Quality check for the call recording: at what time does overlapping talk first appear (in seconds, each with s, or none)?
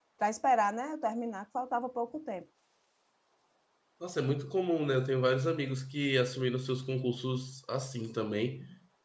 none